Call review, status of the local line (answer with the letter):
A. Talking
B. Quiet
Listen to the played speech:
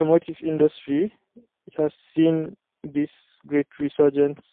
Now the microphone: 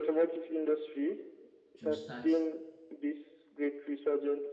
A